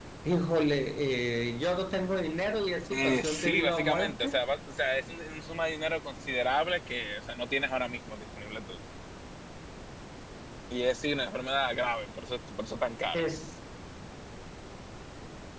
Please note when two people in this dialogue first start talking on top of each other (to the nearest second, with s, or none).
3 s